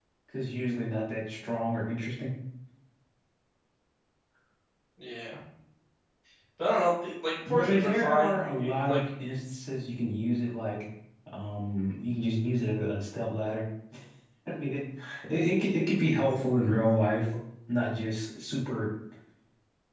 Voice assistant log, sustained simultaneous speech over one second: present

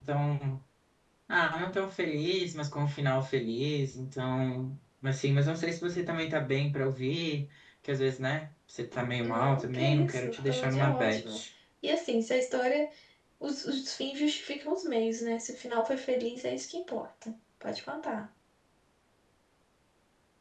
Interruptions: present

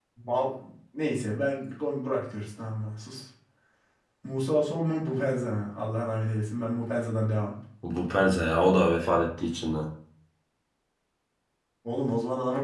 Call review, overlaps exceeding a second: none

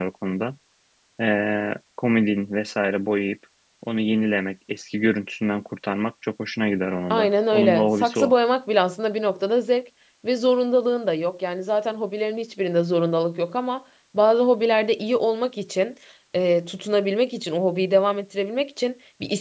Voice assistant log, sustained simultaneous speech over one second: present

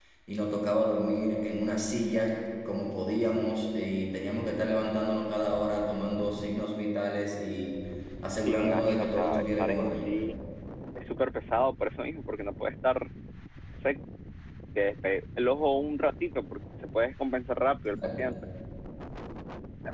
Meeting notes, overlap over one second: present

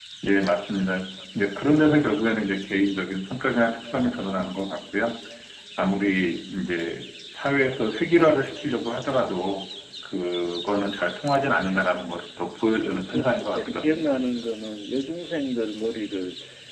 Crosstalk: present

